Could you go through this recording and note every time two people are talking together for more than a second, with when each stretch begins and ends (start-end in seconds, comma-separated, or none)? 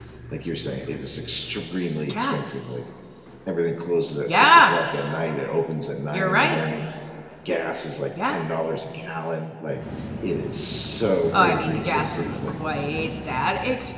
11.3-12.5